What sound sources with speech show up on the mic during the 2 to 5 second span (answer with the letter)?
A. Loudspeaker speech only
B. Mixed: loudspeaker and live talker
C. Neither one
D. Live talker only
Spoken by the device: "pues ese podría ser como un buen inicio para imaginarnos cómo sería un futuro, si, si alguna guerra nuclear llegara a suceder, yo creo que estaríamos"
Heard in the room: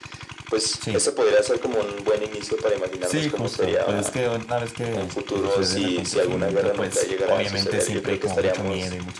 B